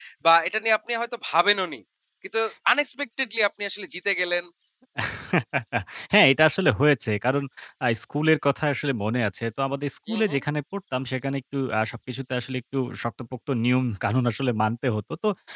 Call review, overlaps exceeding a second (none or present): none